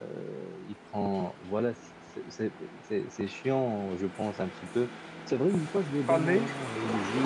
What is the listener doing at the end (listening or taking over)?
listening